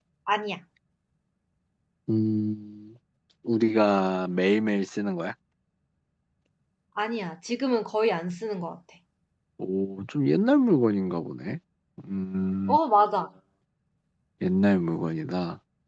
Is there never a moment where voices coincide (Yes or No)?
Yes